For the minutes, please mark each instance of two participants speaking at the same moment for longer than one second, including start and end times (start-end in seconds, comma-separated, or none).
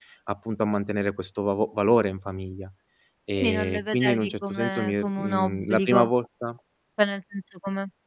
3.4-6.1